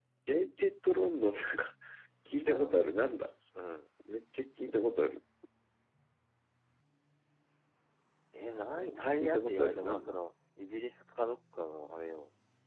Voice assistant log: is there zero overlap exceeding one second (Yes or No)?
No